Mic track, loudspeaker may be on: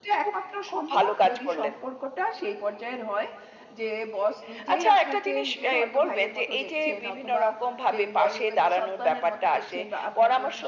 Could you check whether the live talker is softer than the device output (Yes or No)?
Yes